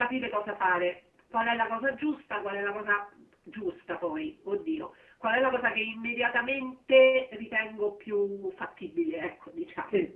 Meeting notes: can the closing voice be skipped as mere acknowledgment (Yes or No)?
No